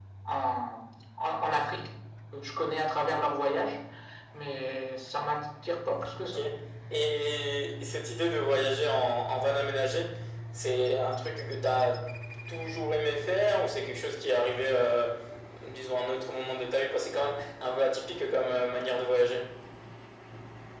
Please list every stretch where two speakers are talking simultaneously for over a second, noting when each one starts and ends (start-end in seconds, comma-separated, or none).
none